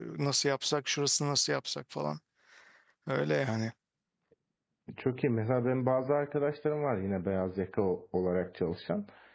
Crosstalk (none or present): none